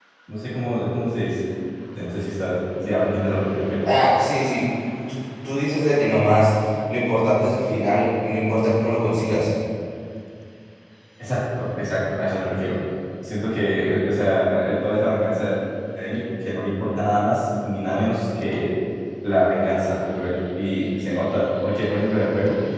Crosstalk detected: No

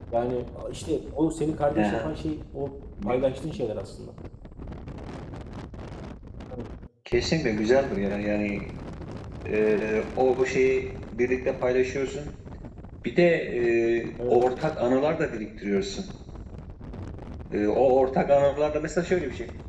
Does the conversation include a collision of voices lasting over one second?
No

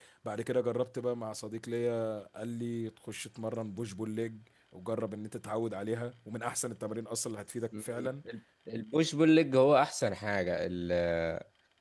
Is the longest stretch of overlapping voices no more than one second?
Yes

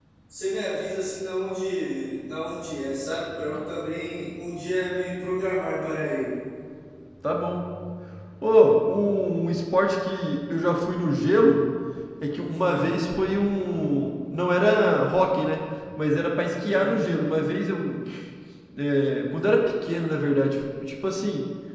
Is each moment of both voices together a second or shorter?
Yes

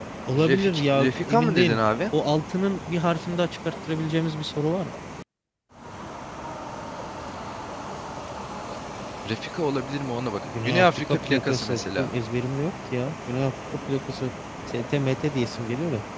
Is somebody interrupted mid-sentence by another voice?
Yes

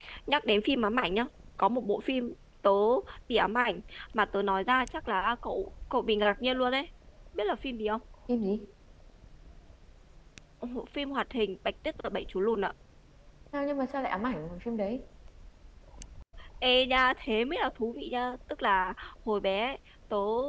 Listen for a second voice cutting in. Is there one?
No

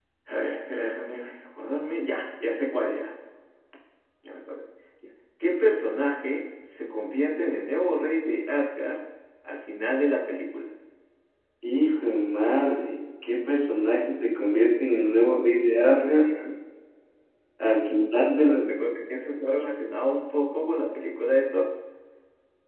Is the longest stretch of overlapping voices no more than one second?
Yes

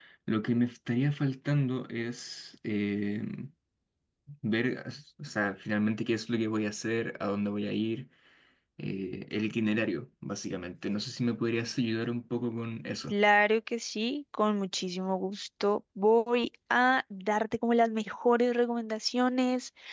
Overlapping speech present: No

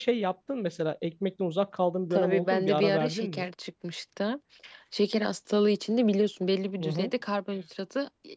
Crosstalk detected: Yes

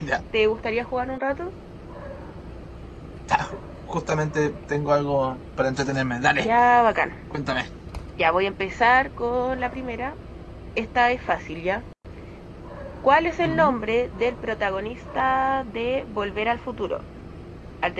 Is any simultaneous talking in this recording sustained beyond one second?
No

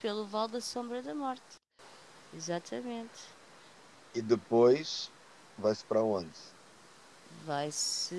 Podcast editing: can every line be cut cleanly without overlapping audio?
Yes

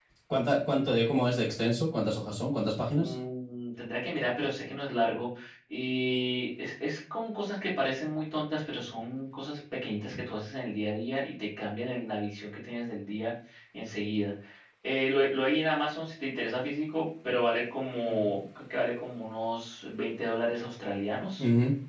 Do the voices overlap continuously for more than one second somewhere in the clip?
No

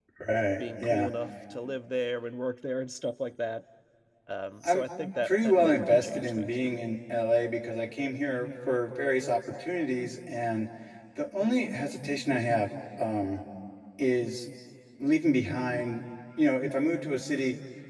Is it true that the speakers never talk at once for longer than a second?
No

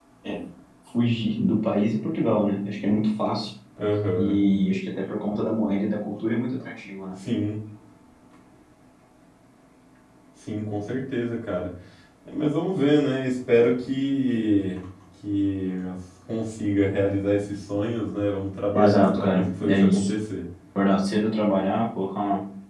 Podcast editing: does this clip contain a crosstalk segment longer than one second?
Yes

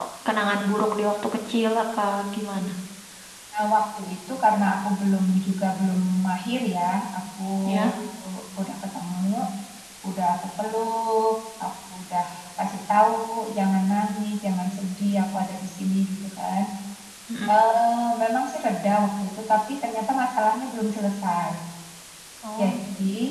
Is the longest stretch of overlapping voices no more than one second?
Yes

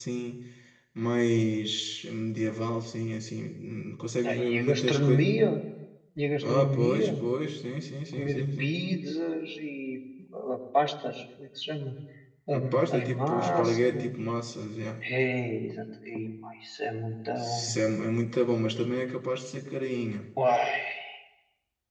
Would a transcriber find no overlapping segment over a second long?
No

